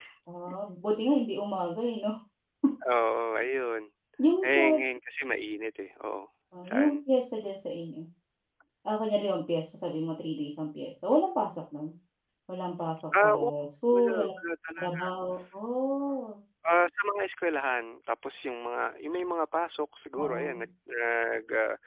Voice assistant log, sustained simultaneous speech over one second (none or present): none